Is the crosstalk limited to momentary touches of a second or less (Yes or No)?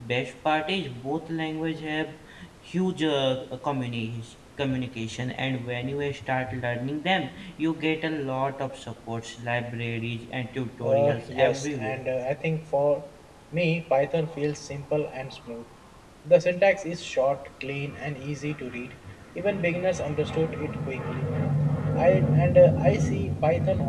No